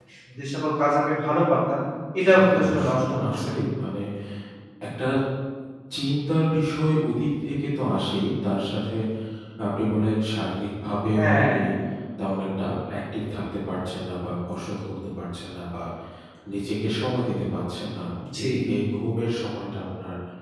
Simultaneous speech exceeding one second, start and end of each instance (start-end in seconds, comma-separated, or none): 2.3-3.5